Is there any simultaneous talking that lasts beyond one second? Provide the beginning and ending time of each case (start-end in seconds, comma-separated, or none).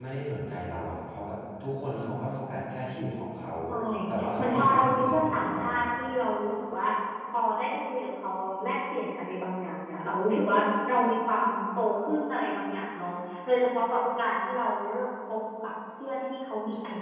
4.4-5.8